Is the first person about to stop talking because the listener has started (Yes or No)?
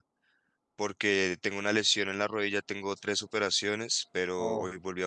No